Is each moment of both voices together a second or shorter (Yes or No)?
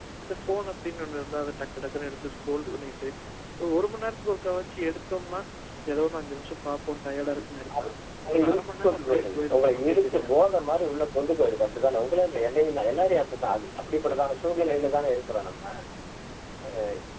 No